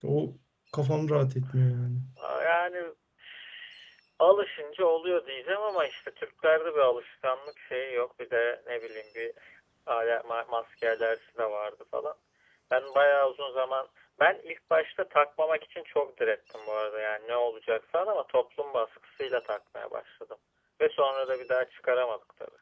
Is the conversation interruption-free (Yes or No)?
Yes